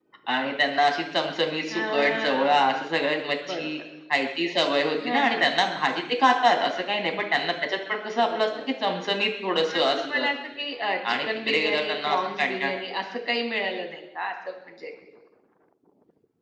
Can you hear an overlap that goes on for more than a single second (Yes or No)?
Yes